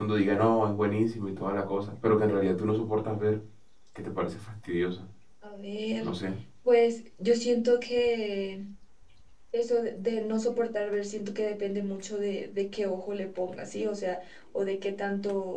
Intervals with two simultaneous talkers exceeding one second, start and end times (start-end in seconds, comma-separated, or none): none